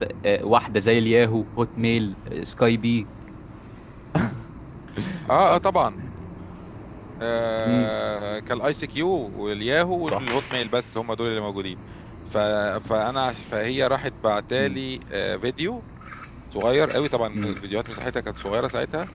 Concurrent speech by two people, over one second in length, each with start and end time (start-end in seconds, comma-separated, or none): none